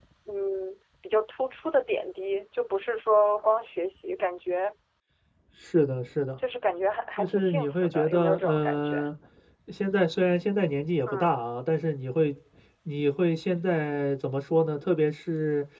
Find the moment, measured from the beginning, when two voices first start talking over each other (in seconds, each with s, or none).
7.2 s